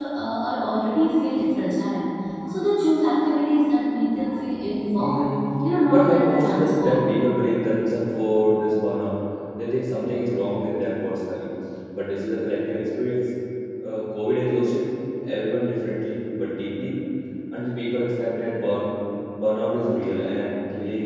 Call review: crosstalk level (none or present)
present